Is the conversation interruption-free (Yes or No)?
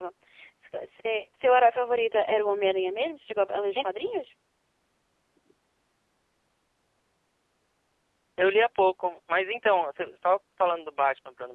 Yes